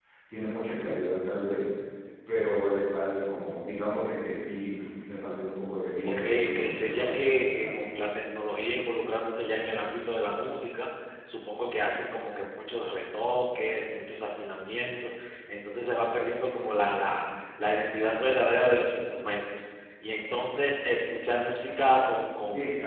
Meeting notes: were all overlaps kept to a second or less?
No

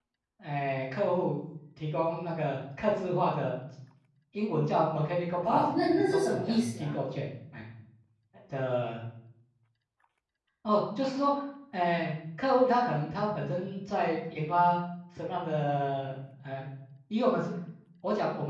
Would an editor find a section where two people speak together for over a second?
Yes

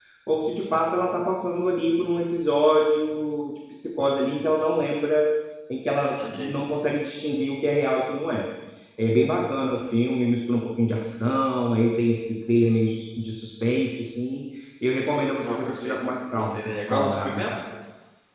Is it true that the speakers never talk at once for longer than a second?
No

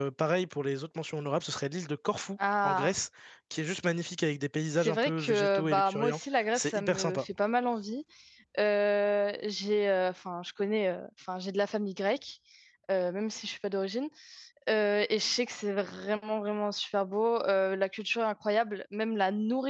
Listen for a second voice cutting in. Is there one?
Yes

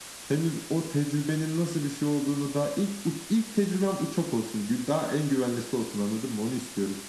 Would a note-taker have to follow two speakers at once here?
No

